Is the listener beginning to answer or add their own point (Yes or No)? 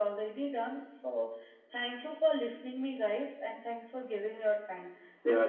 Yes